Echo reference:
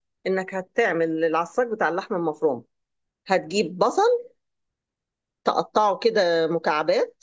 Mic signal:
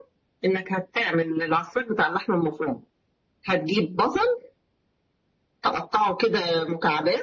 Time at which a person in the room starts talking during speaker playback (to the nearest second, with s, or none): none